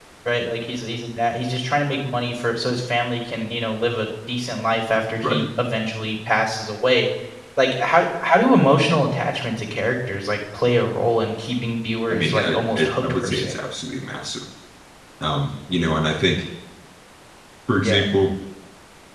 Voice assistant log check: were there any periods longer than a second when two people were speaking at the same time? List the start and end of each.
12.1-13.6

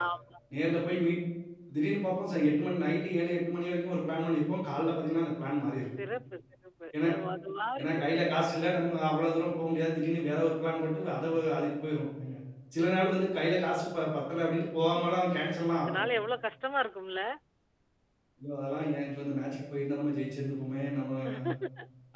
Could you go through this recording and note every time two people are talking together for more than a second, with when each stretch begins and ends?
none

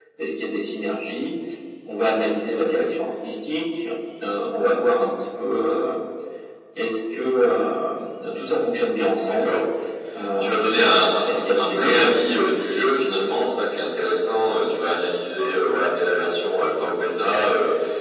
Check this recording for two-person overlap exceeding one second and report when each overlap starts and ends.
10.4-12.1

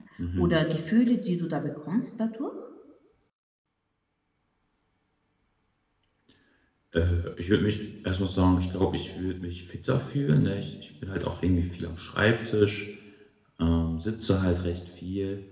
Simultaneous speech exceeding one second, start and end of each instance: none

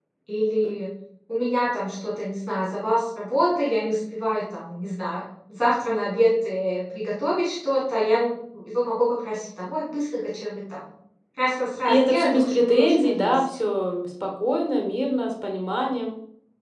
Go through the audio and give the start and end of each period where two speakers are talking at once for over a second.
11.8-13.4

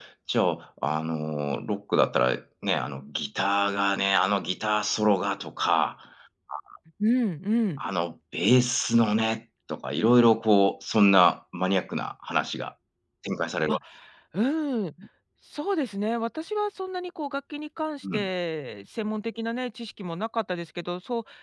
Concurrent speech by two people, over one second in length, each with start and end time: none

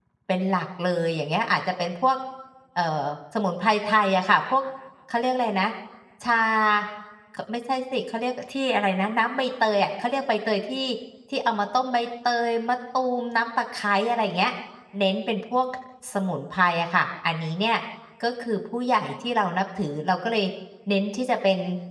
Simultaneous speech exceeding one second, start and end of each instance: none

